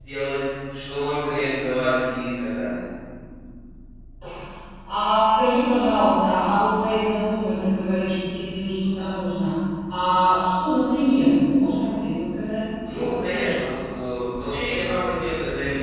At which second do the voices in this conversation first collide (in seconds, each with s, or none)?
none